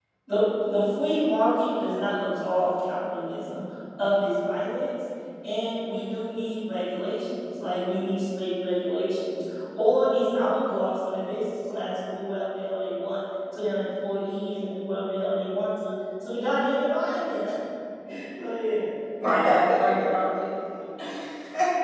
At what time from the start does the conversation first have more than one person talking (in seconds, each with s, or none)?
none